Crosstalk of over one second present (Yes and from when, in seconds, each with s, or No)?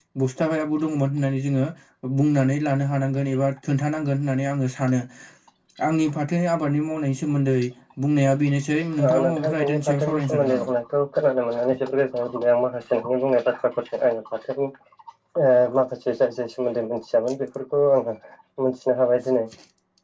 Yes, from 9.0 s